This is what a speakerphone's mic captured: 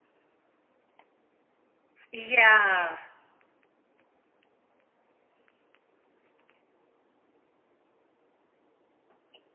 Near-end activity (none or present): present